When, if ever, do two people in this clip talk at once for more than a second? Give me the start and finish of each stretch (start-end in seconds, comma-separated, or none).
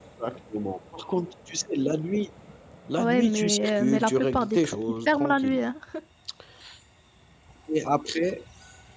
3.0-5.6